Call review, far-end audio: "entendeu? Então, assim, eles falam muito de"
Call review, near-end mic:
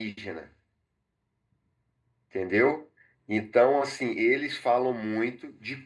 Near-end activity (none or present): none